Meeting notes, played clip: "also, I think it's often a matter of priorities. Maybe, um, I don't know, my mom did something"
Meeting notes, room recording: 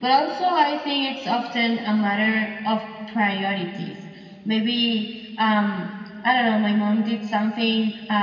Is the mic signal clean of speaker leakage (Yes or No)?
No